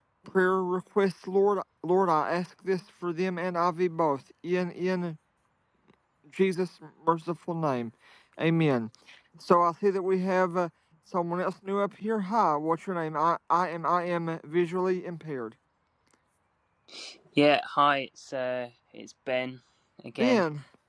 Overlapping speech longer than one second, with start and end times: none

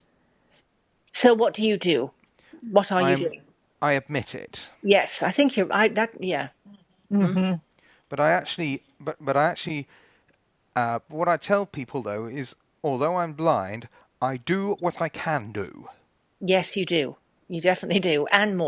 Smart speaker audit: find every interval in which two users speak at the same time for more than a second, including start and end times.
none

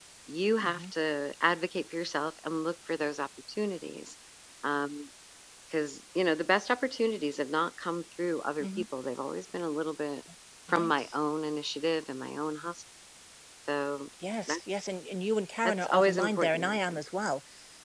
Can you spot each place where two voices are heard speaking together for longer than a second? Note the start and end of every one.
15.6-17.0

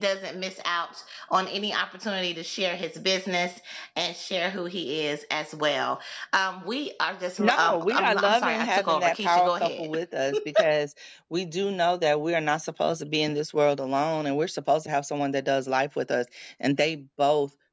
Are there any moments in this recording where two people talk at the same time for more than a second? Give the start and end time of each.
7.4-9.9

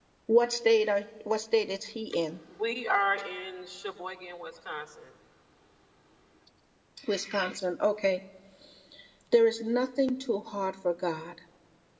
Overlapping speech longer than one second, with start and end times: none

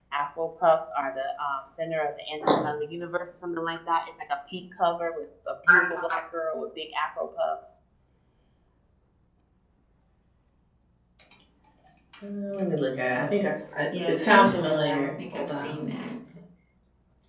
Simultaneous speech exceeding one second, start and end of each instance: 14.1-15.9

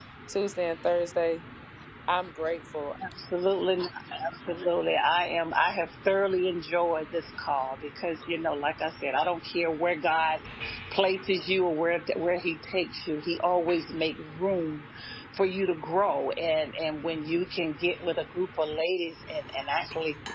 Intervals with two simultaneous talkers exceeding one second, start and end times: none

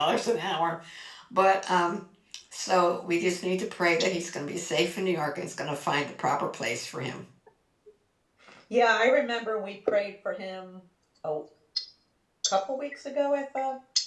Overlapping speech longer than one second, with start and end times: none

